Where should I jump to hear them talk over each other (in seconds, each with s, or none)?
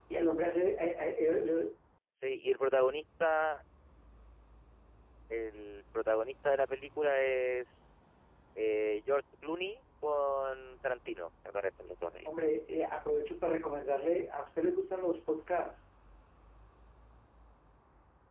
none